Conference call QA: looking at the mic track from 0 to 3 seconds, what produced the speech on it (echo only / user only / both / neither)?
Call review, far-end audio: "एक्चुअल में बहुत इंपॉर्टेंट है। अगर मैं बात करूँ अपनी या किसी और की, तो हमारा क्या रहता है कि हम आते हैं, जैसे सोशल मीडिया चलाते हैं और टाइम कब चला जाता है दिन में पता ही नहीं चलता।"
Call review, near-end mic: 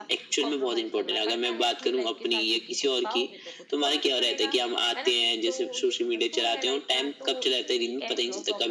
both